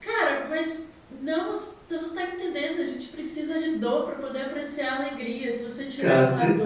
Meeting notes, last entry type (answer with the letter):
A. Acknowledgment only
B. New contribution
A